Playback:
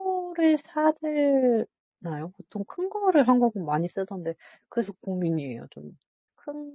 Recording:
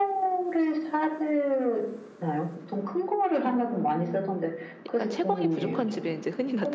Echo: present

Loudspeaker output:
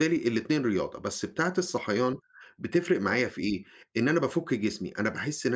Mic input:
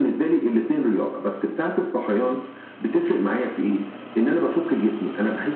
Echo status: present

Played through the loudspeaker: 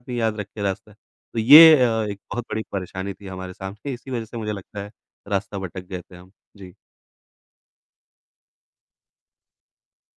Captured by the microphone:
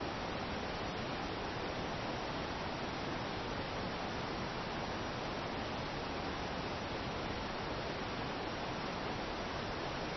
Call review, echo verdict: none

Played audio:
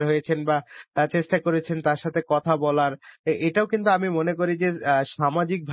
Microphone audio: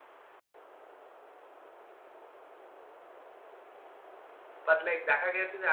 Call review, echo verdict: none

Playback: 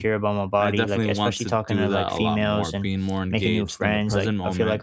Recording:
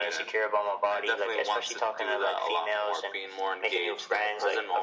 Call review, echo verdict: present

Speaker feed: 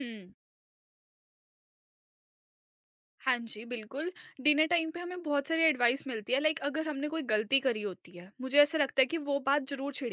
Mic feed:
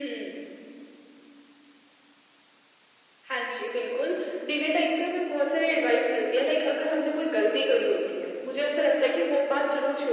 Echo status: present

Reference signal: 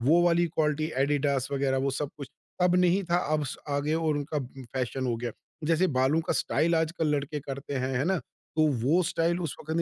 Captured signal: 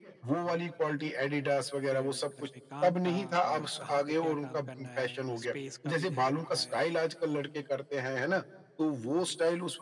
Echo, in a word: present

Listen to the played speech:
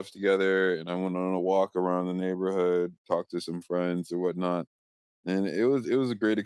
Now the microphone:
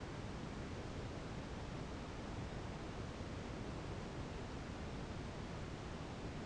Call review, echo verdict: none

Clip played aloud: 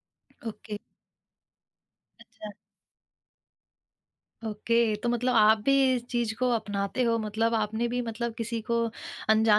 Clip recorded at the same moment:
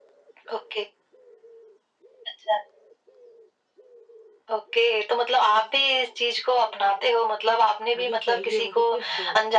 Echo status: present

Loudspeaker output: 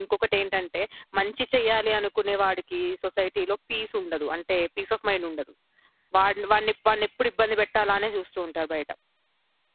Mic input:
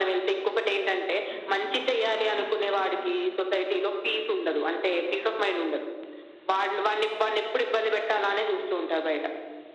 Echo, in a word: present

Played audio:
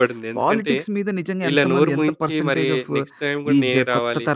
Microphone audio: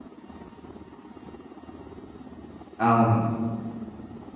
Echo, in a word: none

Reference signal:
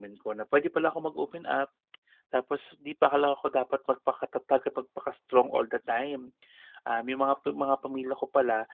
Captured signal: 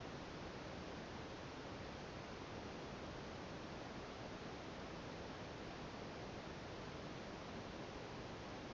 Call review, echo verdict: none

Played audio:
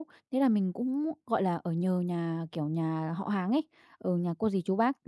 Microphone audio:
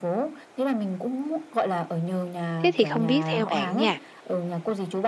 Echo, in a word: present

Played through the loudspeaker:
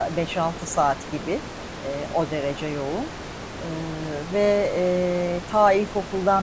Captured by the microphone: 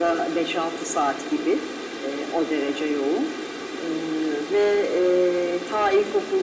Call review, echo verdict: present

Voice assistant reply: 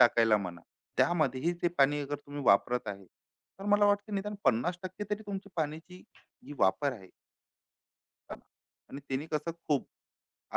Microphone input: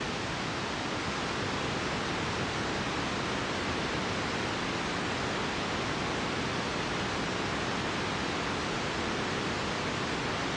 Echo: none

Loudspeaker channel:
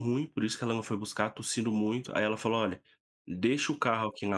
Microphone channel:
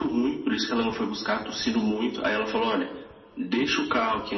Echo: present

